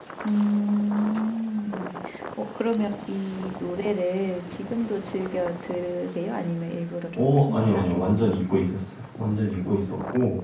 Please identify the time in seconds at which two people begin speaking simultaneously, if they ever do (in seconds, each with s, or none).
7.1 s